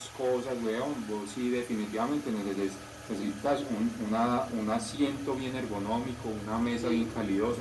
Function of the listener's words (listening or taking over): listening